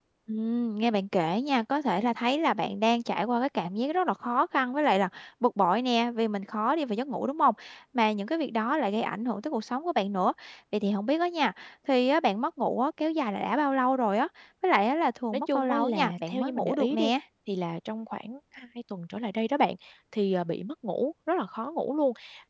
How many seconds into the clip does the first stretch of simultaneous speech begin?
15.3 s

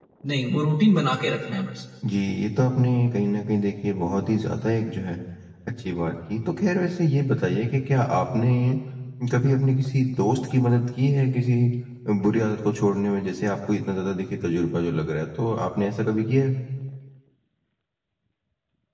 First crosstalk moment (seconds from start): none

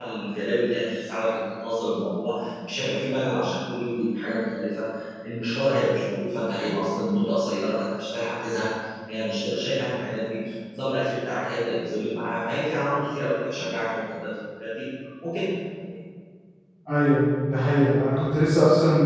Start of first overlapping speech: none

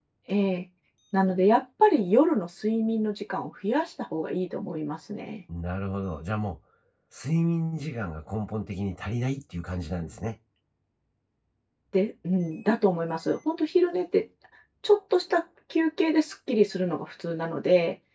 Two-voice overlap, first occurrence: none

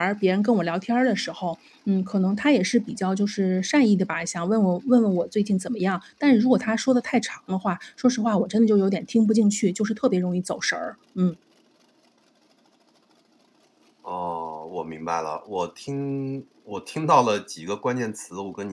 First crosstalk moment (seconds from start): none

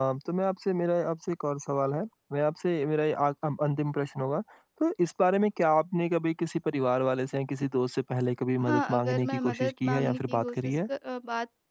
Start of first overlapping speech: 8.6 s

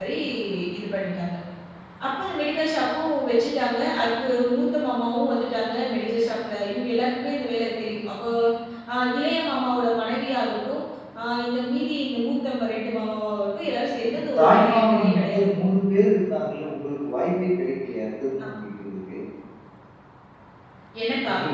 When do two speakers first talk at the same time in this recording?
14.1 s

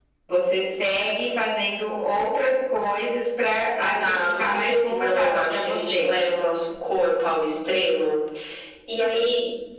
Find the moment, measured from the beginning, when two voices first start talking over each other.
3.7 s

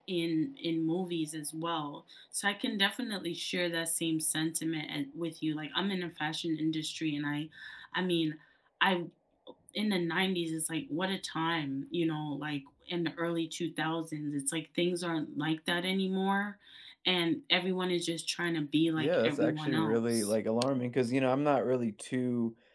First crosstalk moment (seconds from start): 19.0 s

